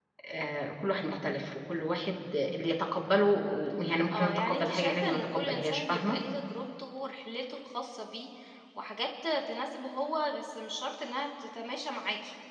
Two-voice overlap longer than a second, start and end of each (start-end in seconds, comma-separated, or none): 4.1-6.2